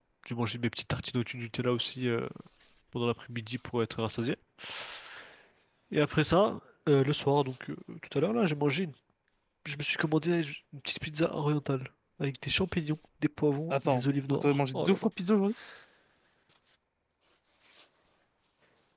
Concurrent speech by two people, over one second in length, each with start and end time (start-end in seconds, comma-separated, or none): 13.7-15.1